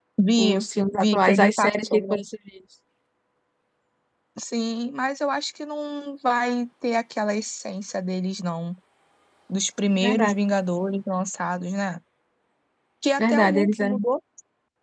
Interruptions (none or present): present